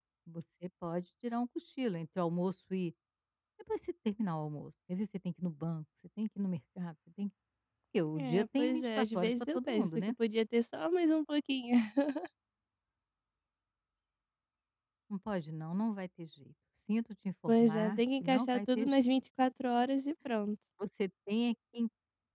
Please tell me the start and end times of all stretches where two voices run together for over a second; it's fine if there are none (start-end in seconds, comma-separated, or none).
8.2-10.1, 17.5-19.0